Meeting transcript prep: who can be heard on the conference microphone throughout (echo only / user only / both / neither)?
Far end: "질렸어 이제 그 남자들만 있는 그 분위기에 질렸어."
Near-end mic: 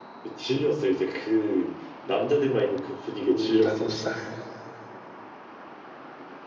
both